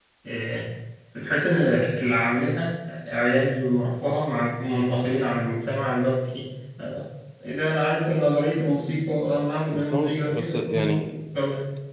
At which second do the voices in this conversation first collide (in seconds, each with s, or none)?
9.7 s